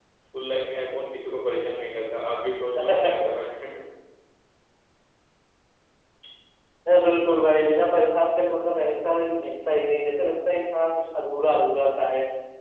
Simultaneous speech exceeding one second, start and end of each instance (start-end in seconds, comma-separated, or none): none